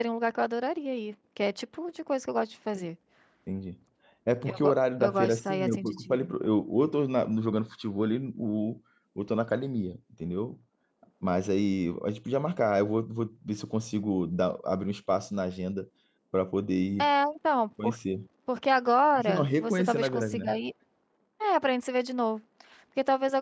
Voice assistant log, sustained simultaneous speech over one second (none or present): present